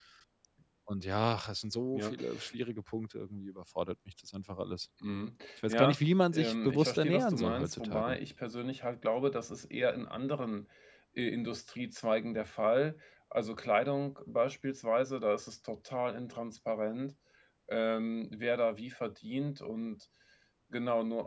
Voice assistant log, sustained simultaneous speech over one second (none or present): present